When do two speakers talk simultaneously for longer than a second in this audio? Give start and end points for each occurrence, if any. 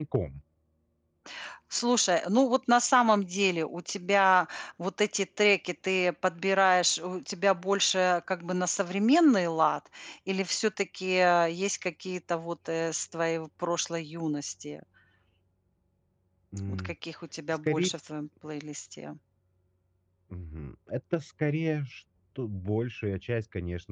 none

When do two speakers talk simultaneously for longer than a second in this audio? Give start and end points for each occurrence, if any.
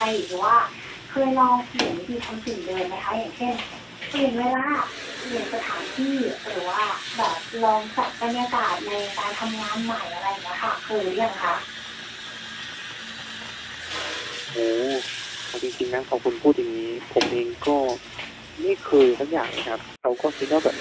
none

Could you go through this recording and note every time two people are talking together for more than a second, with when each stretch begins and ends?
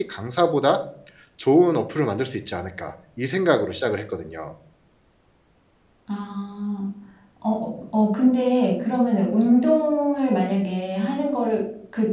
none

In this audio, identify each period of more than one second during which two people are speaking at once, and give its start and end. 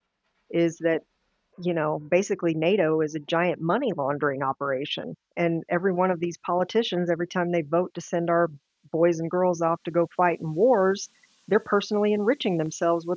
none

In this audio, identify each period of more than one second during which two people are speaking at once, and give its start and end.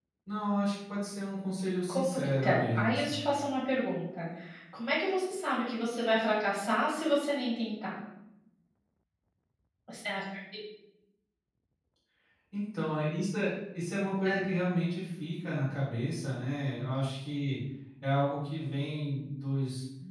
1.9-3.2

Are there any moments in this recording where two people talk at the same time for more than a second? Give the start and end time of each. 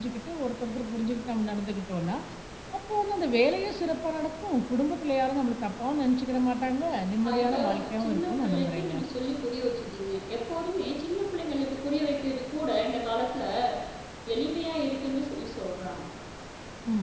7.3-8.9

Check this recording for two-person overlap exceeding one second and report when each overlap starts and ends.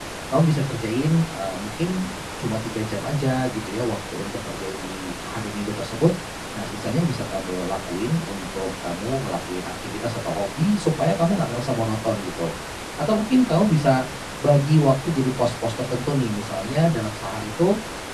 none

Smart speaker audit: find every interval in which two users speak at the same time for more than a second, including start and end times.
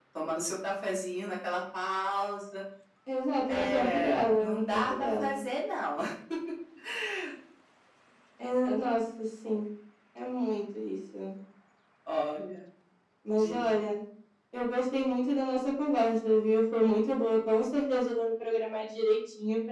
3.5-5.3

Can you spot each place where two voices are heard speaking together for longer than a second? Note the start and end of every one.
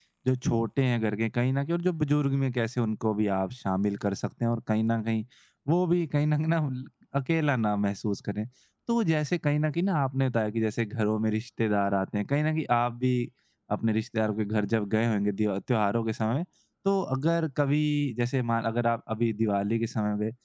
none

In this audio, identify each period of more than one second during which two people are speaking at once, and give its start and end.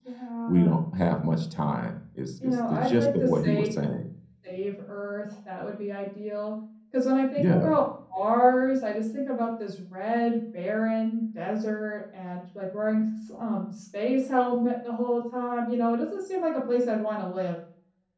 2.4-3.7

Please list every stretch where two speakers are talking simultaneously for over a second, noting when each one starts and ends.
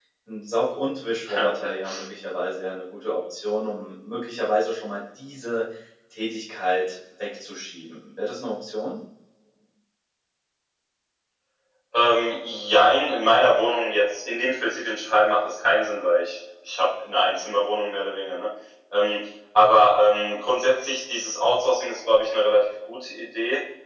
none

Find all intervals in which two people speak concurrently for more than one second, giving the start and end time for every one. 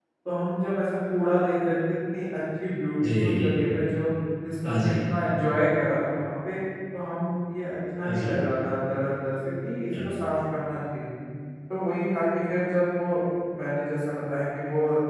none

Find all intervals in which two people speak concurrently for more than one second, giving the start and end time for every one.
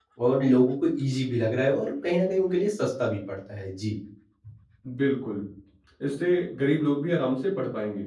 none

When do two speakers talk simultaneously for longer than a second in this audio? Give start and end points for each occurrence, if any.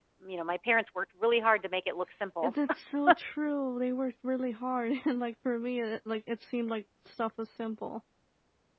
none

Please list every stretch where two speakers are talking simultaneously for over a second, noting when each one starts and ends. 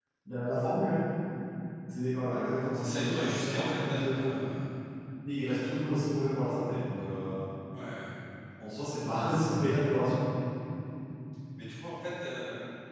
2.7-4.4

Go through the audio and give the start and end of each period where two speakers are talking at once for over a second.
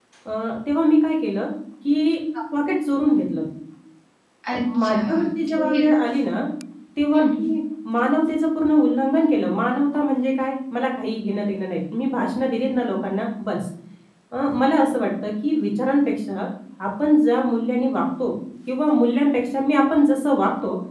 4.5-5.8

